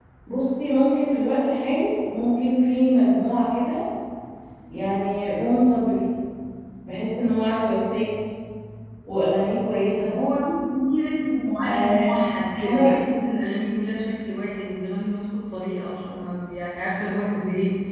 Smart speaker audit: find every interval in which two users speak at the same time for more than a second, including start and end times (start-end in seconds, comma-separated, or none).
none